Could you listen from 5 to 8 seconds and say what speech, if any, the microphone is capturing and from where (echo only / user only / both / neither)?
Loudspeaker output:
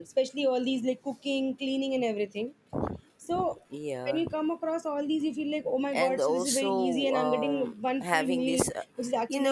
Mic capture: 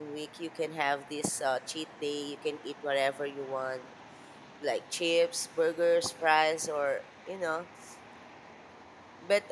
user only